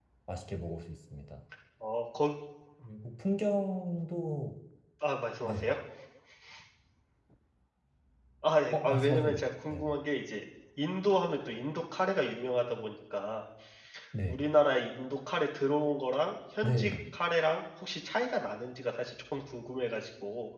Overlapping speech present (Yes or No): Yes